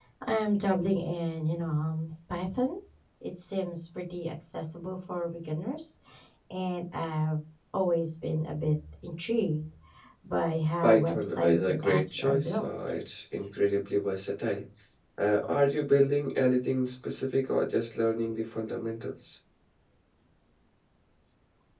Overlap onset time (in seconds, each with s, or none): 10.8 s